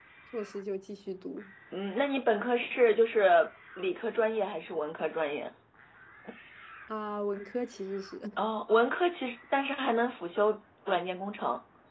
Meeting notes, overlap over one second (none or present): none